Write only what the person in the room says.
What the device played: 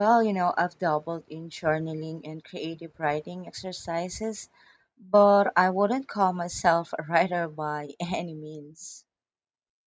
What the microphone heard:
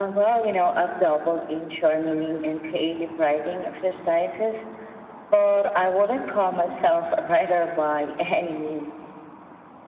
none

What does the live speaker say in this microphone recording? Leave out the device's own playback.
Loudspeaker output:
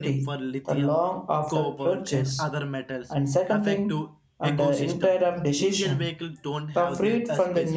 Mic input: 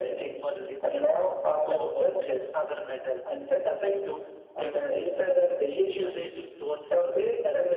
none

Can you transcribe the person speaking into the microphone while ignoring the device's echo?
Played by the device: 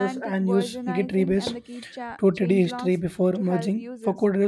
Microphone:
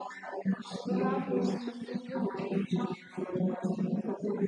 without losing a single

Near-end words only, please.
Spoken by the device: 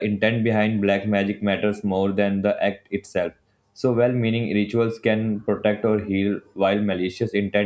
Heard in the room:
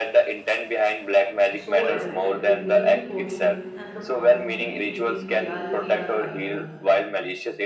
so addictive. They make you question, and the boundary between reality are unknown.

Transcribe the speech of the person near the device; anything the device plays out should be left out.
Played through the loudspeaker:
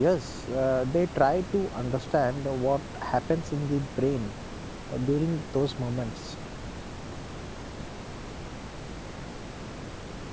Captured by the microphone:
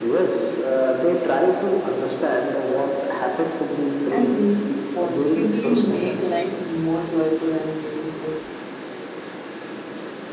And thinking positively make life more joyful and meaningful.

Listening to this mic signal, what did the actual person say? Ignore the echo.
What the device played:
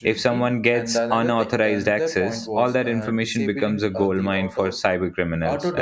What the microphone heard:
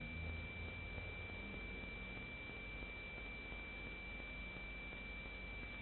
none

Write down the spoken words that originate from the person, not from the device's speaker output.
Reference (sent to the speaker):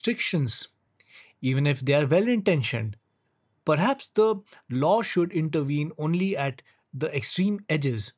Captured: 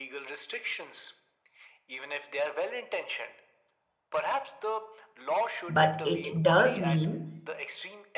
but it does mean

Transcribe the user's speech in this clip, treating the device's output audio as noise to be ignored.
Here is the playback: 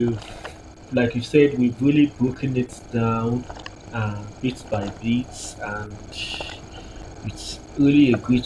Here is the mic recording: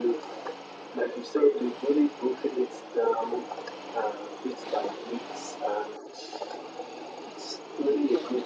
none

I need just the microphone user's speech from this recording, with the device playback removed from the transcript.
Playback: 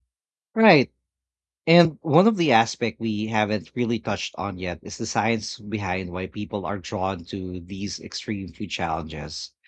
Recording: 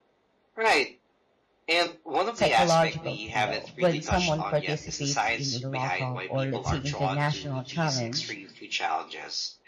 psychological thrill. When someone participates in a local or, let's say, international challenge,

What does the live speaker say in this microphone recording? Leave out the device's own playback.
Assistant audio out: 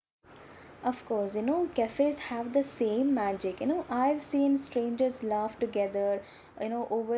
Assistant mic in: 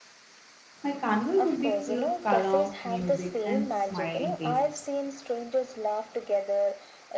My carnival would be full of color, music, and smiling faces.

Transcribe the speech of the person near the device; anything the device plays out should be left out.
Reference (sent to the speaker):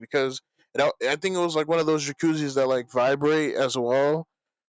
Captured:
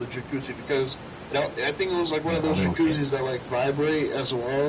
uh, a little kid.

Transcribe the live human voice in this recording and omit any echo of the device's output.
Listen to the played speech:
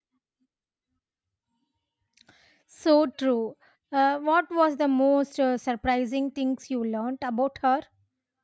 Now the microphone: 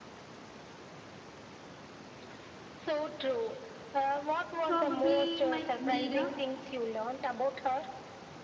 Probably my reader.

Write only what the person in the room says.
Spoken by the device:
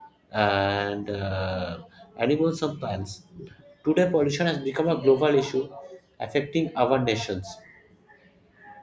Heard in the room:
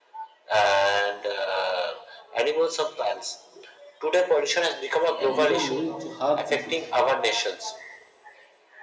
can even lead to heart disease

